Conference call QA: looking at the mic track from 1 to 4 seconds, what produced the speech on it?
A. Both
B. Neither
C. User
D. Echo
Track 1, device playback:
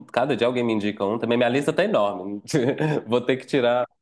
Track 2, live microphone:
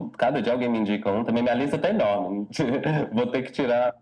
D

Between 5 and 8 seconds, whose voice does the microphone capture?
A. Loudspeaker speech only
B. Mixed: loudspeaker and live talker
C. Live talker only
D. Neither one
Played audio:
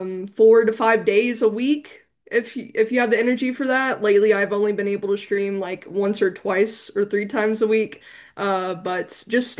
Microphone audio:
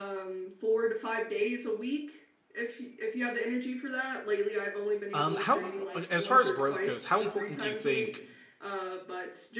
B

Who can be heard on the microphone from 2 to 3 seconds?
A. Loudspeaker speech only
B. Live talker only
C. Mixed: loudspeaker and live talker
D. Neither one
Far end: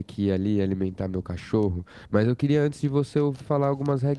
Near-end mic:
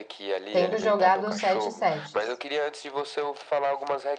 C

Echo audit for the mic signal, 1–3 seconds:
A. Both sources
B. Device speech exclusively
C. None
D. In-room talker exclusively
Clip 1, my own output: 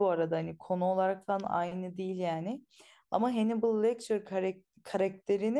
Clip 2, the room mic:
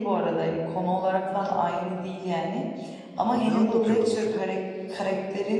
B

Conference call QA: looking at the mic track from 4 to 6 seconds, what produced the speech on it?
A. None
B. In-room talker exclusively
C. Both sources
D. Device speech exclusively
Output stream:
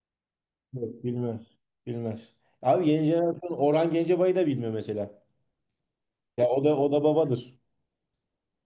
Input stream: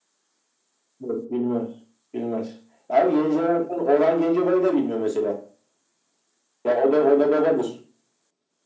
D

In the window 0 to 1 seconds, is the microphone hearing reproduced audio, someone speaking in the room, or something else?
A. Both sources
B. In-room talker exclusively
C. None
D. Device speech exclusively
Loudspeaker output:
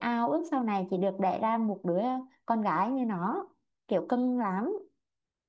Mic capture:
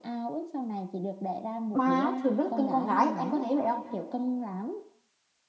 D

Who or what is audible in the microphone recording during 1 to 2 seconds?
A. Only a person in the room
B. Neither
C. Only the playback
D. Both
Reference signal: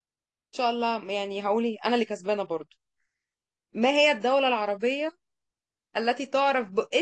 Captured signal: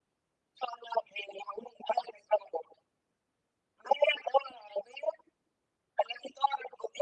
C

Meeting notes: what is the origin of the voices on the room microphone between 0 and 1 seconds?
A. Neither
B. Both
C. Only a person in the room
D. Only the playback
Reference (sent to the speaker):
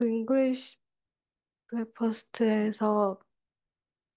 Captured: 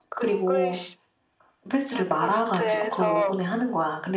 B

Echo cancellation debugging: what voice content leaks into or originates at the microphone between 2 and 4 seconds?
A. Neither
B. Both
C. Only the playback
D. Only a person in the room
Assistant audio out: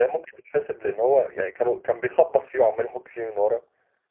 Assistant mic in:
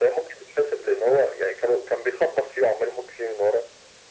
C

